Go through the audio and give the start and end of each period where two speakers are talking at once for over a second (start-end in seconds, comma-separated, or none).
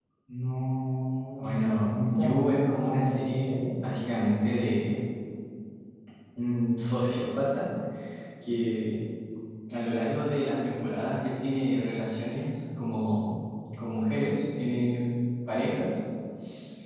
1.4-3.6